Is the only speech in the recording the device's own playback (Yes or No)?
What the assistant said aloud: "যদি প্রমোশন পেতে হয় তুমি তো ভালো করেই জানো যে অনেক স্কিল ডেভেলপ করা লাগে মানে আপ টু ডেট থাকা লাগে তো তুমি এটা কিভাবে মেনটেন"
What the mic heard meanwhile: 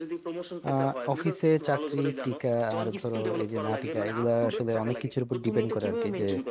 No